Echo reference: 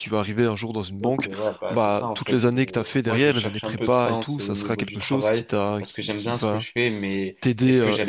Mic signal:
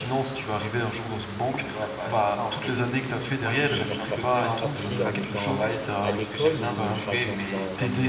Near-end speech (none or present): present